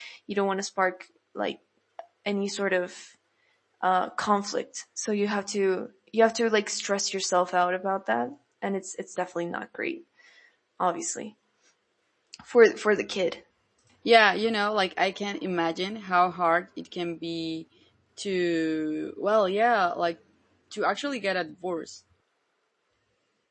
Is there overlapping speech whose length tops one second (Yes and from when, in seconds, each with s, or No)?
No